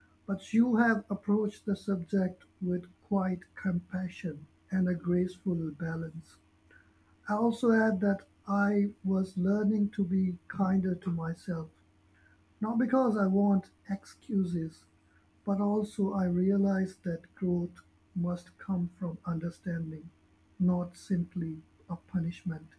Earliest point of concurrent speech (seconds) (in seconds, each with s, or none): none